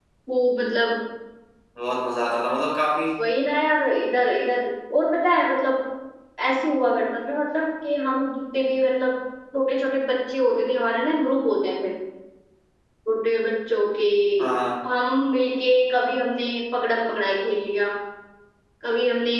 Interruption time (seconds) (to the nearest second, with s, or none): none